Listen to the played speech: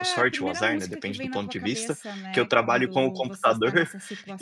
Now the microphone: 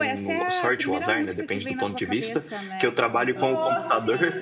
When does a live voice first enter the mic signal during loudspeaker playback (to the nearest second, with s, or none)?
3 s